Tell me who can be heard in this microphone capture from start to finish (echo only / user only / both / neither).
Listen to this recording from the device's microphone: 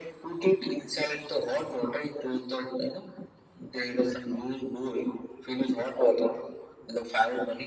echo only